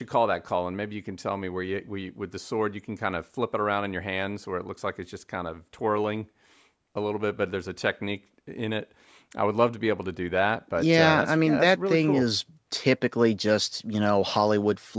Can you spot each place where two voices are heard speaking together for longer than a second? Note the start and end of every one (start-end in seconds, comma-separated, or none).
10.8-12.2